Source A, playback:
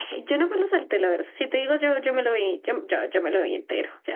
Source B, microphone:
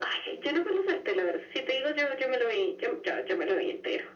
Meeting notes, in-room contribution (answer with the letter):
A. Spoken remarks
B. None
B